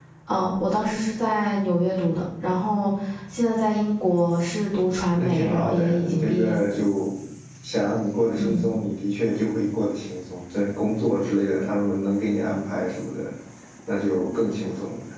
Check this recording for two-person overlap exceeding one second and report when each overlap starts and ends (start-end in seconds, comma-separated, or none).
5.2-6.6